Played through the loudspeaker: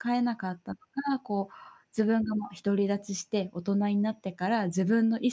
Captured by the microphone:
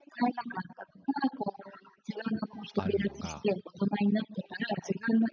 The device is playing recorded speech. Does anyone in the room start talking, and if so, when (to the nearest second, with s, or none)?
3 s